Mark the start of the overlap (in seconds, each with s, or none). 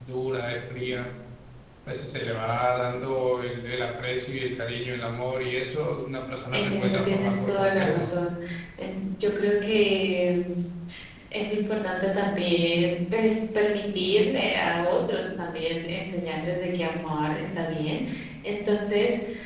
6.5 s